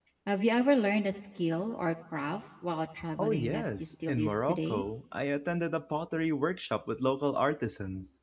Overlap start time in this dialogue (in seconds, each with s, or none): 3.2 s